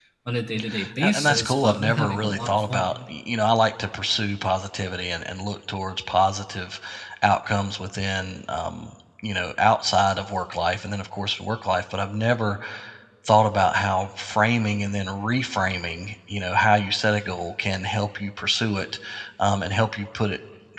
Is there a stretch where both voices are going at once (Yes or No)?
Yes